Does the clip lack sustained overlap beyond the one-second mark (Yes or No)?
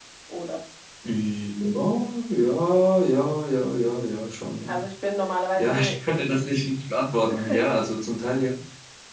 Yes